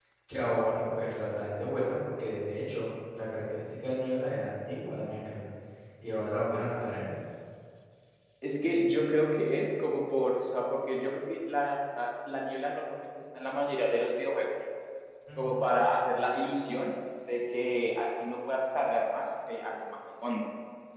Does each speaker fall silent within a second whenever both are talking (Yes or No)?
Yes